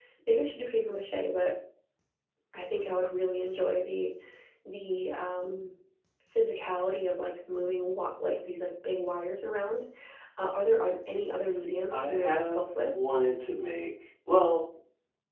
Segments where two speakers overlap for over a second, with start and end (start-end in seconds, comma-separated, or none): 11.4-12.7